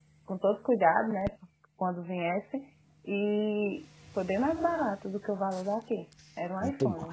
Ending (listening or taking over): taking over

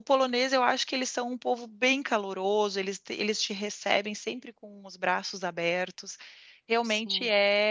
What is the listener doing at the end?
listening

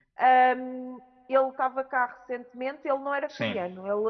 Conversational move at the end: listening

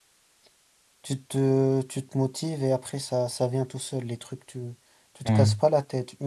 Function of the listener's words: listening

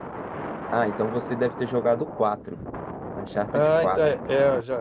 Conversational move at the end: taking over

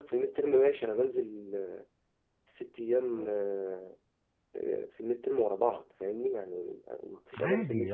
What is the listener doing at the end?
taking over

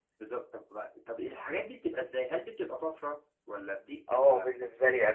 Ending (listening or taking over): taking over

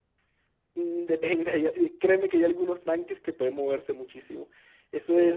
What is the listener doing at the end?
listening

